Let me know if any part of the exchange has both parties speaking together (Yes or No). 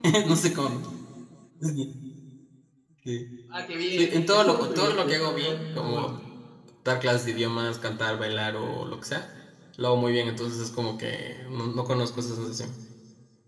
Yes